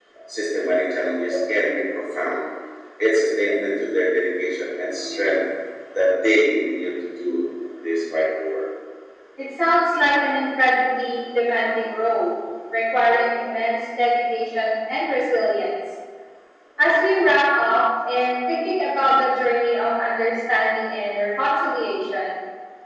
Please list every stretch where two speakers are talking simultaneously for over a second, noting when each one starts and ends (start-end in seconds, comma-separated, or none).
none